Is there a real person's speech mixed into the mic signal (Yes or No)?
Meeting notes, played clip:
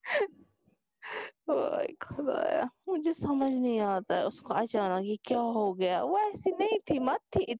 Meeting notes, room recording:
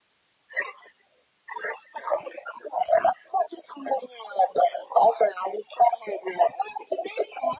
No